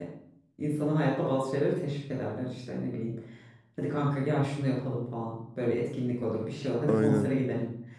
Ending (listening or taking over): listening